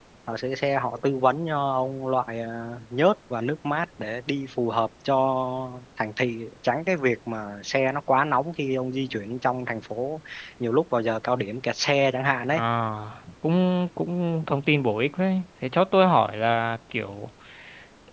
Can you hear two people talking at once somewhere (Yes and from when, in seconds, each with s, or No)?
No